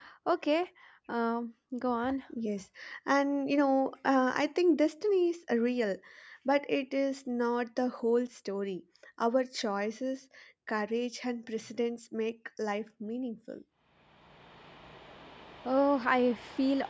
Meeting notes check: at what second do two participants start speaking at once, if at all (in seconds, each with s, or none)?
none